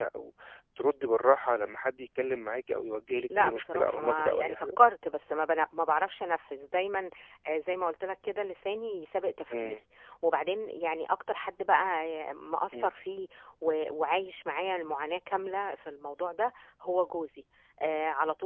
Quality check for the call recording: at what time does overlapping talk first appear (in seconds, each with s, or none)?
3.4 s